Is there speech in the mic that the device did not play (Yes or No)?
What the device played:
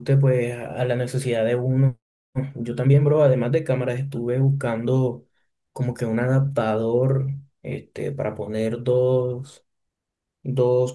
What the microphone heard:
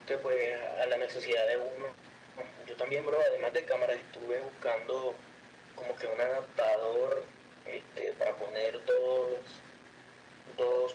No